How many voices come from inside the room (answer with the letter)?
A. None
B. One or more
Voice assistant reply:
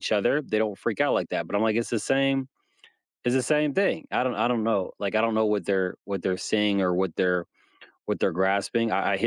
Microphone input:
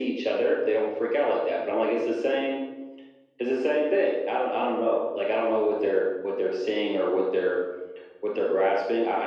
A